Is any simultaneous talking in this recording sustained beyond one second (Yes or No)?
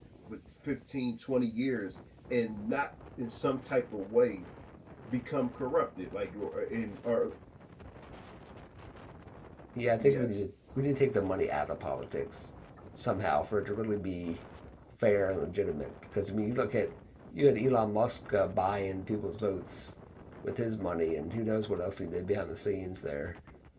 No